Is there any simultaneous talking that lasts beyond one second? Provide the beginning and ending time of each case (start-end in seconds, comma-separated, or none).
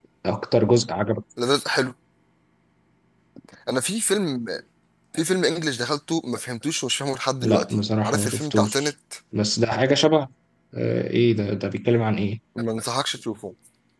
7.4-8.9